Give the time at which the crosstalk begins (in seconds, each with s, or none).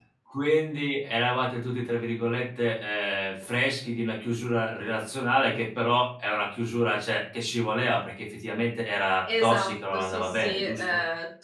9.3 s